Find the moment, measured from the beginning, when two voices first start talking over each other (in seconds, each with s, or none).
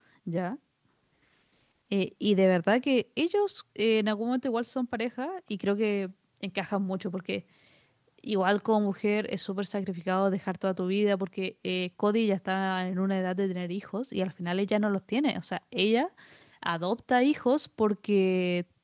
none